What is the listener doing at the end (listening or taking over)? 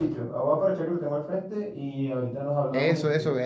taking over